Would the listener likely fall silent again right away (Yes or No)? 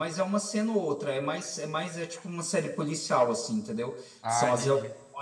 Yes